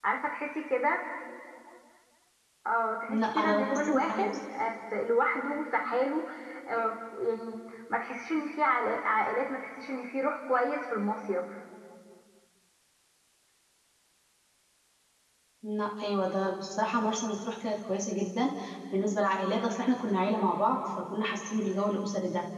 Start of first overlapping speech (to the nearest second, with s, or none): 3 s